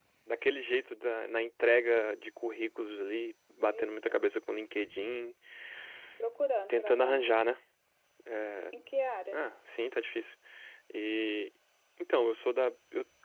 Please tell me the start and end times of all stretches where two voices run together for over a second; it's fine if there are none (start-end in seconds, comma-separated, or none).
none